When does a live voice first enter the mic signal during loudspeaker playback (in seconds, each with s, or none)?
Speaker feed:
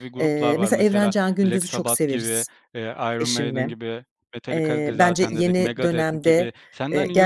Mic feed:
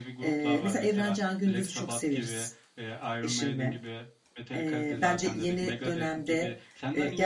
none